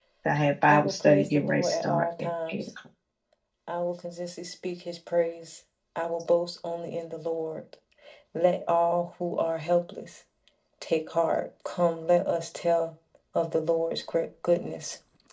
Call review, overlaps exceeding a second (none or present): present